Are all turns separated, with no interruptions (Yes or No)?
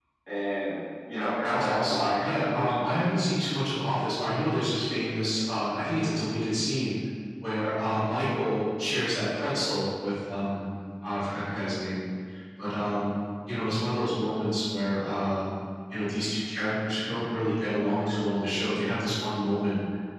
No